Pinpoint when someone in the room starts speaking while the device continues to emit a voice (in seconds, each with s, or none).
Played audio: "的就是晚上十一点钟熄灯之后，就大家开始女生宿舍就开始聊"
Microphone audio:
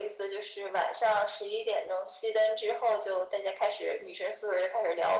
none